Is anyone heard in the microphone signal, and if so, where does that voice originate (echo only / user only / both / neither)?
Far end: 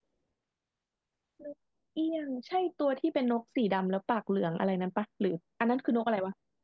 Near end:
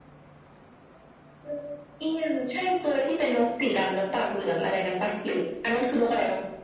echo only